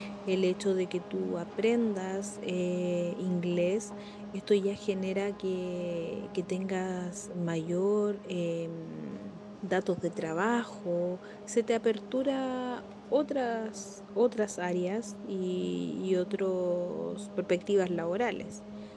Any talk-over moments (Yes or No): No